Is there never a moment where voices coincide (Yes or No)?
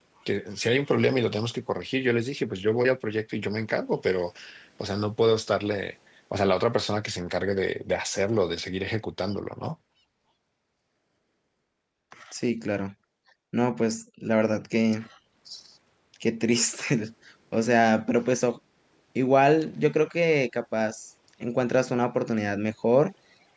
Yes